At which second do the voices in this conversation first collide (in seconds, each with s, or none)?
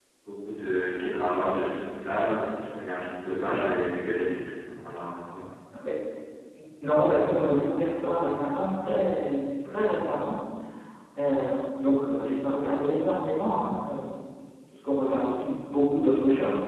none